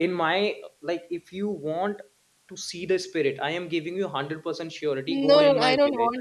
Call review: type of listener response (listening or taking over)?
taking over